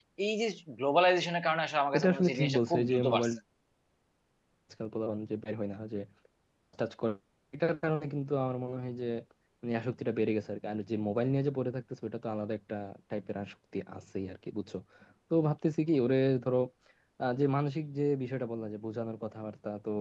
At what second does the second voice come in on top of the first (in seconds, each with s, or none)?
1.9 s